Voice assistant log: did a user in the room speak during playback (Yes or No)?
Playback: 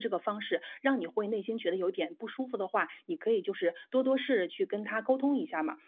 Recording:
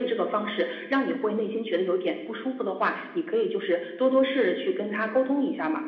No